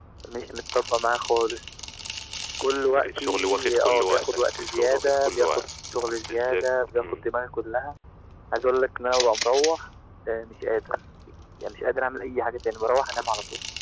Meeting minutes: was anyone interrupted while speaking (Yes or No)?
Yes